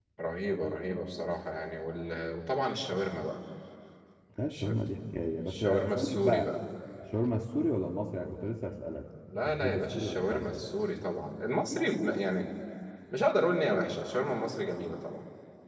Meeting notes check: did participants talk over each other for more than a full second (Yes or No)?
Yes